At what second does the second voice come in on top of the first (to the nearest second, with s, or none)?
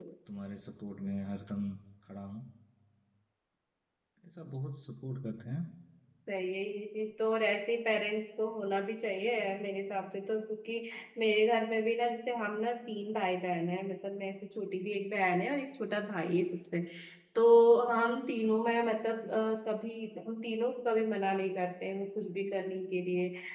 none